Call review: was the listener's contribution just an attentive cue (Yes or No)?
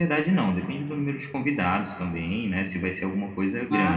No